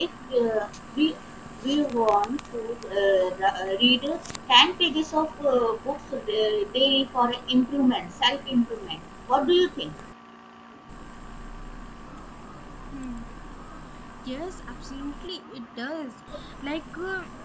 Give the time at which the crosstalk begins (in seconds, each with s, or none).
none